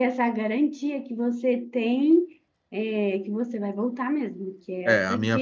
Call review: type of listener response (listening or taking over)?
taking over